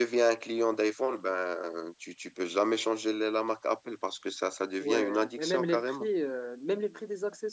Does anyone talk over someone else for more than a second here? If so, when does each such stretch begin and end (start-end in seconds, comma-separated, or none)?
4.8-6.1